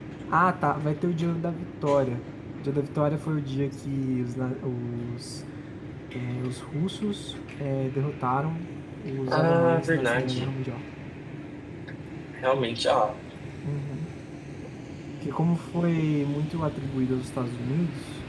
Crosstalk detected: Yes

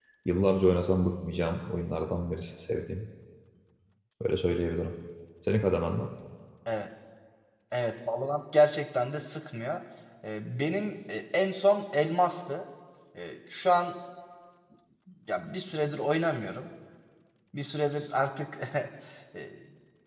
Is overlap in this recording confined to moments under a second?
Yes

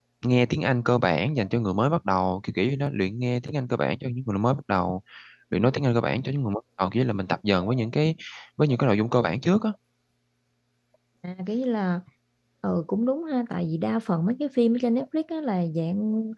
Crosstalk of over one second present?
No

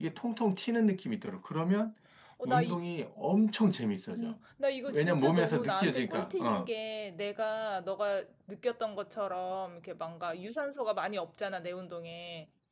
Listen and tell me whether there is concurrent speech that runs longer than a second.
Yes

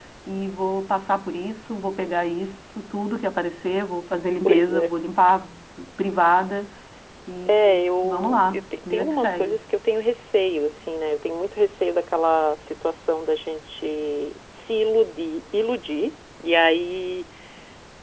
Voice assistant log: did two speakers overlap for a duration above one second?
Yes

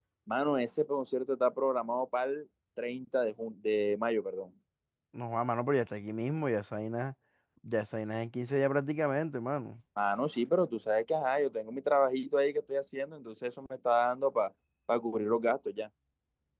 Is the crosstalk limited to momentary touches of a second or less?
Yes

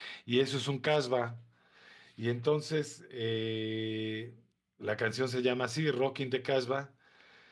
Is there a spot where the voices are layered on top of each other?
No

